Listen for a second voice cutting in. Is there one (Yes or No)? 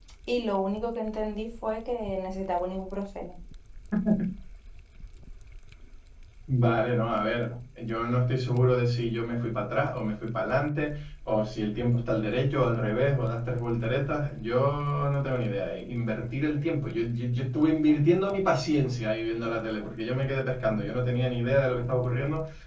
No